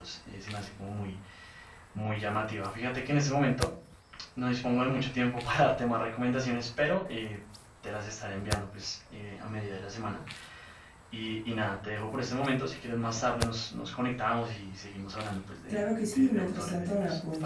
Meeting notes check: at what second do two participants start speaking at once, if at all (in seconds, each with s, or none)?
15.7 s